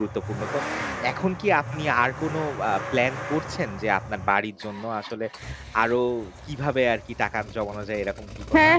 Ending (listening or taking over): taking over